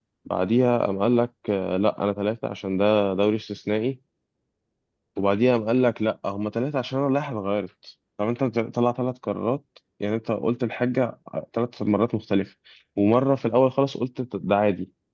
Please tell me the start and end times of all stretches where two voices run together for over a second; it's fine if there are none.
none

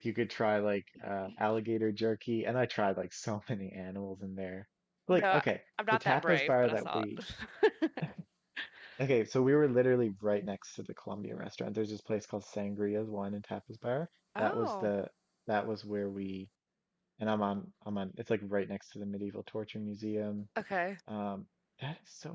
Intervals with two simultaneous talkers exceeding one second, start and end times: 5.9-7.2

